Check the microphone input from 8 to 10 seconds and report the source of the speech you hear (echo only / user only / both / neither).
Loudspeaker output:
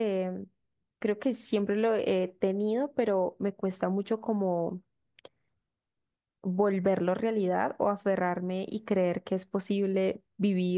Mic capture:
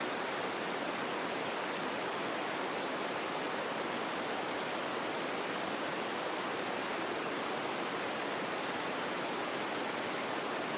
neither